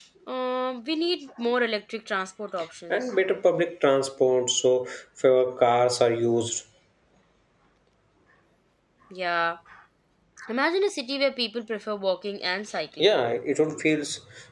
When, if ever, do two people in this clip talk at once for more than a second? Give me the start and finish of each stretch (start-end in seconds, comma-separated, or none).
none